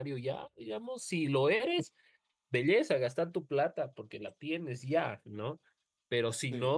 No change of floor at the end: Yes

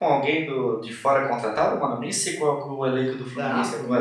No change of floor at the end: No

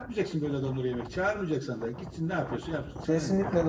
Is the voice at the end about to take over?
Yes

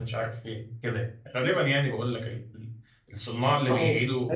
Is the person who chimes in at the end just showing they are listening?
No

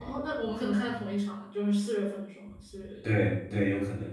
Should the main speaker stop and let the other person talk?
Yes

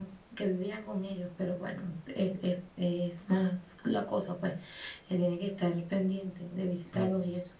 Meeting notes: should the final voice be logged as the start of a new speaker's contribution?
No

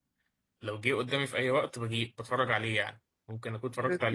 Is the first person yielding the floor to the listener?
No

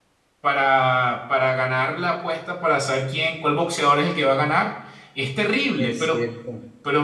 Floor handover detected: No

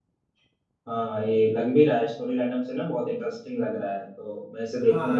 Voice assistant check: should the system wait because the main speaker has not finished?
No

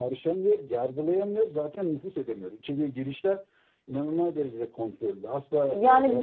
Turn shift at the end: Yes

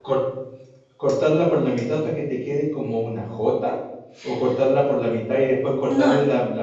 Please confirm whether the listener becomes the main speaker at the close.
No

